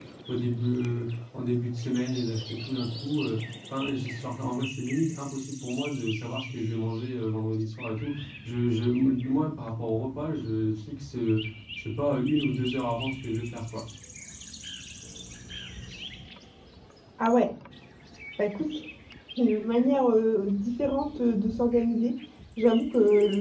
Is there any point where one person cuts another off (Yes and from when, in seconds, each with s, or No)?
No